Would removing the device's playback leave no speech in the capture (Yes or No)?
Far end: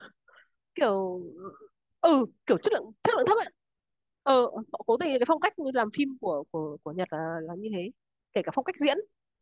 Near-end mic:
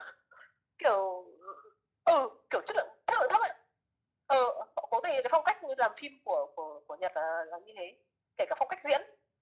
Yes